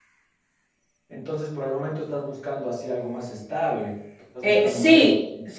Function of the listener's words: taking over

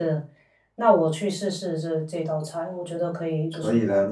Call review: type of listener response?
taking over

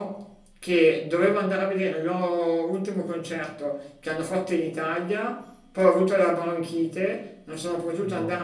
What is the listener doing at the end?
listening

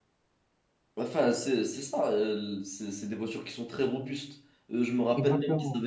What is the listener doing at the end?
listening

